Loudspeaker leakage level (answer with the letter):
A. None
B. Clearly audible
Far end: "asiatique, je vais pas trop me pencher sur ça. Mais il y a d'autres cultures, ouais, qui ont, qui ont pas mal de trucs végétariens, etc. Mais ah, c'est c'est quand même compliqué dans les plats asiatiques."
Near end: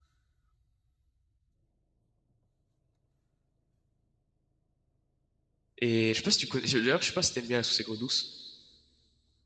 A